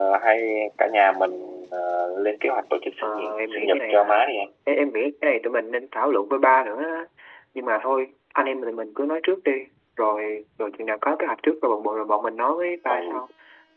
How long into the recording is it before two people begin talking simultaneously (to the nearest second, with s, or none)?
3 s